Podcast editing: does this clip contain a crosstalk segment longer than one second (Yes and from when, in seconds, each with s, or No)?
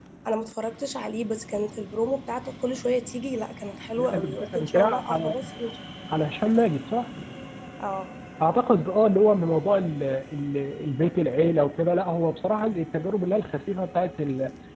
Yes, from 4.0 s